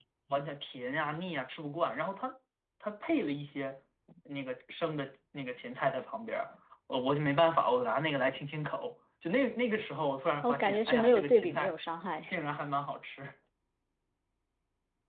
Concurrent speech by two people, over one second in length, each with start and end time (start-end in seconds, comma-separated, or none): 10.4-11.8